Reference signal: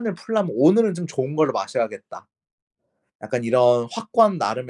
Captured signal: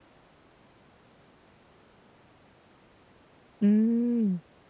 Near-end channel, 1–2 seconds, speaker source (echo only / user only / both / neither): neither